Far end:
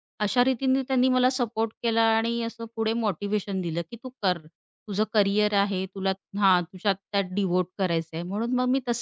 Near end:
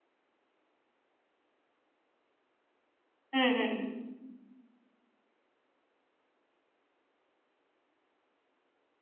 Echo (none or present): none